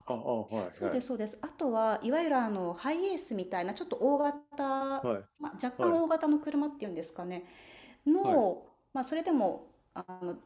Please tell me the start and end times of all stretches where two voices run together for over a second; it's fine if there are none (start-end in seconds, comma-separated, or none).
none